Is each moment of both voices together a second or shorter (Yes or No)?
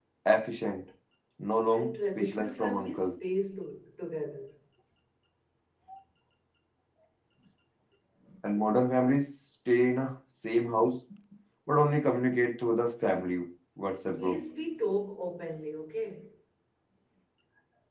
No